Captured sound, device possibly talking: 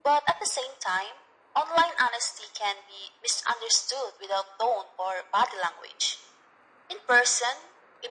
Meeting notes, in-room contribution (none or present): none